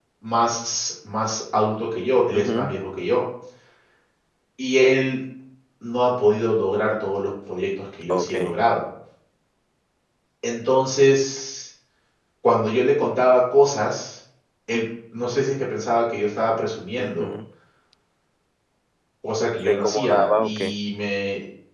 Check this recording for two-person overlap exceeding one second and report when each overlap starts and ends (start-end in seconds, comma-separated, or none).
19.4-20.7